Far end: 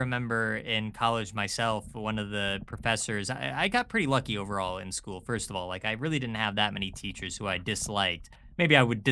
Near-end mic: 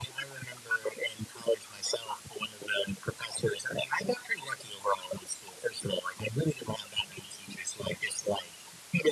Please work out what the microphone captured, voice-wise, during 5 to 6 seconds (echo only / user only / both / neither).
echo only